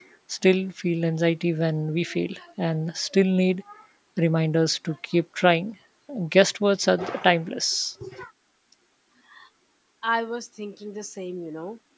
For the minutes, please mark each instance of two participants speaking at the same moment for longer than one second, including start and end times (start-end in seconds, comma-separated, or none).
none